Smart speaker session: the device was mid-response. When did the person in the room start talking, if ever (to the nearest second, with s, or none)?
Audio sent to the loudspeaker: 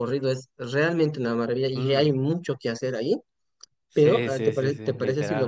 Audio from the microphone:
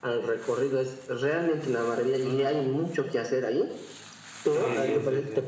5 s